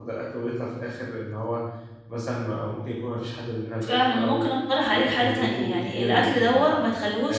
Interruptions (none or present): present